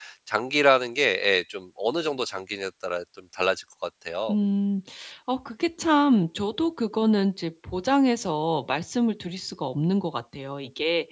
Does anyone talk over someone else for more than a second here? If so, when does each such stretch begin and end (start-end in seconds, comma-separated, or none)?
none